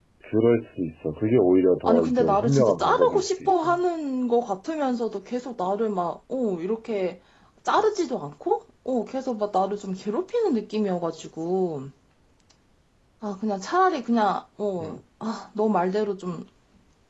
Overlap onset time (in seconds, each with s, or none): 1.8 s